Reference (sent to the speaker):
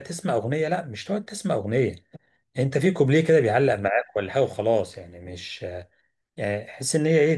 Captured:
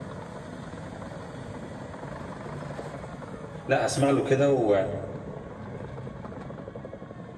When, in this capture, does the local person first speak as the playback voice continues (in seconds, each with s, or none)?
3.7 s